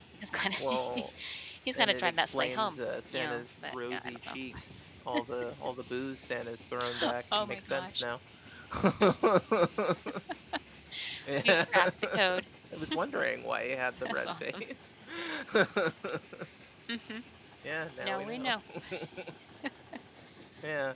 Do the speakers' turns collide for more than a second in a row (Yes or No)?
Yes